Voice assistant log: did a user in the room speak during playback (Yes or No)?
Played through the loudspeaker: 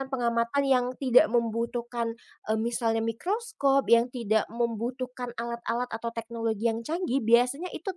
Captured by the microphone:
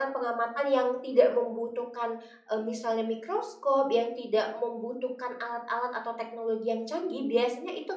No